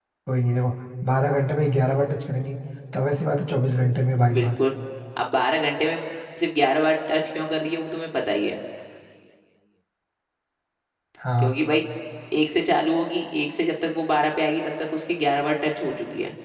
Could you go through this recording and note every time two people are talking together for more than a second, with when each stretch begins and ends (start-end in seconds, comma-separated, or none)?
none